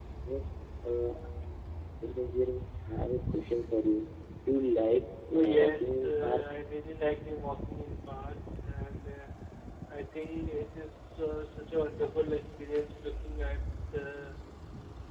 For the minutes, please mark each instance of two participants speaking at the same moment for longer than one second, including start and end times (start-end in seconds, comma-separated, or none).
5.4-6.6